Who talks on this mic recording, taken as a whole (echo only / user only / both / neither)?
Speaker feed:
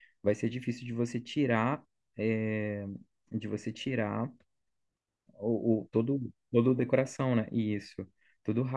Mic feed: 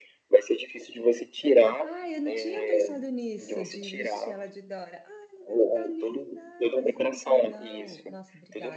both